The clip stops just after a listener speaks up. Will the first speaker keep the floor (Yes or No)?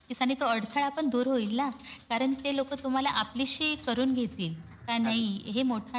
Yes